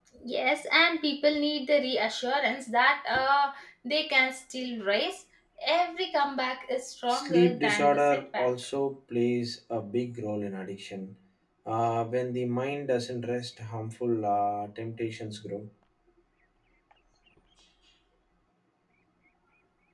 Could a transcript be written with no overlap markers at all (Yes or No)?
No